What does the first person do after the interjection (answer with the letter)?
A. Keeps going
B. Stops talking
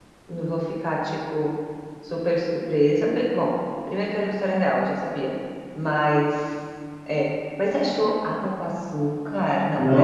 B